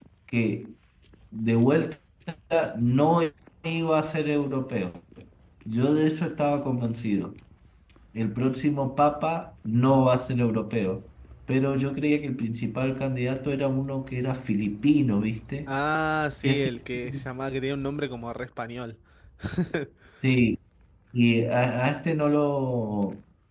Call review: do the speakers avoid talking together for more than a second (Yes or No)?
Yes